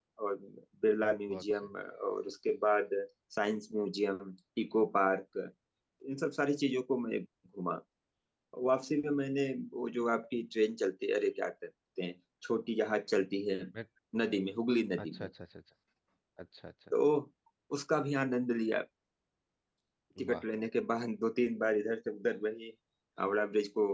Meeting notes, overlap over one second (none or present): none